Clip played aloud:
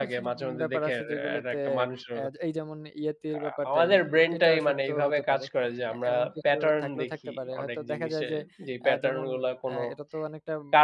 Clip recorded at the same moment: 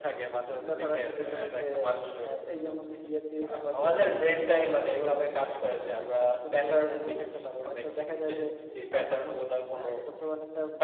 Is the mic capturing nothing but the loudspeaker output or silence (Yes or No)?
Yes